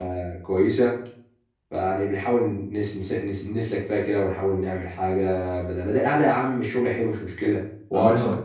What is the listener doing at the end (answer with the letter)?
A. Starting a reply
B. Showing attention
A